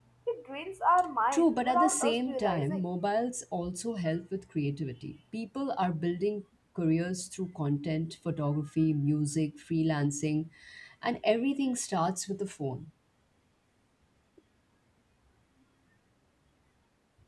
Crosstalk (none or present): present